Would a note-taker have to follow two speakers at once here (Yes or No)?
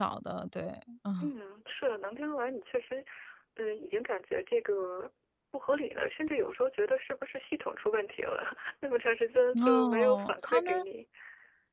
Yes